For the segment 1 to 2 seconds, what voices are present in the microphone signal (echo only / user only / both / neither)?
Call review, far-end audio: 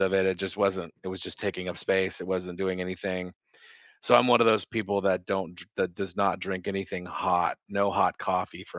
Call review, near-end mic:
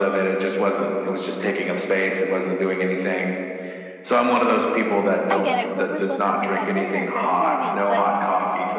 echo only